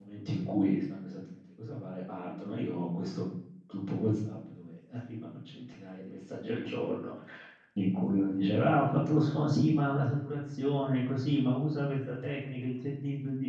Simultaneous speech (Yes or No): No